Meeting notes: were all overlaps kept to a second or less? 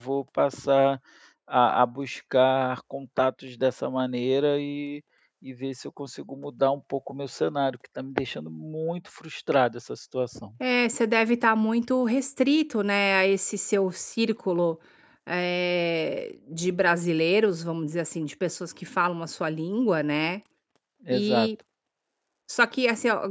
Yes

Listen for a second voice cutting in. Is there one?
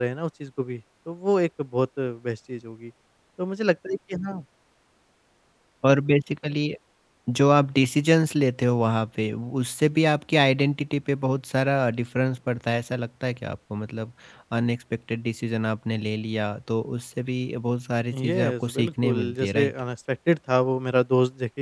Yes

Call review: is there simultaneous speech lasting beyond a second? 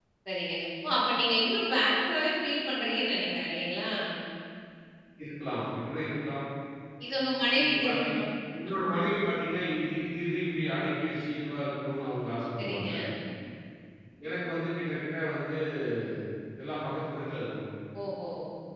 No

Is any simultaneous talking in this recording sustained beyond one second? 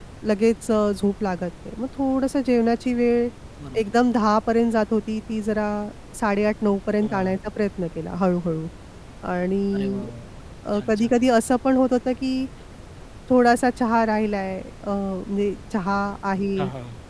No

